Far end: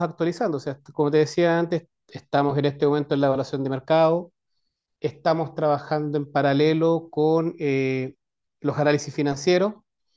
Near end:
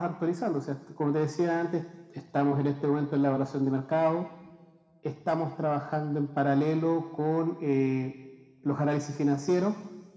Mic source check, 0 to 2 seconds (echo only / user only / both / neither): echo only